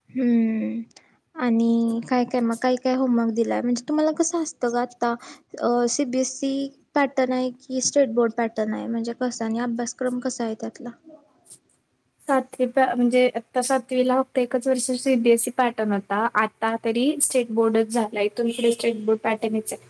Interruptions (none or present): none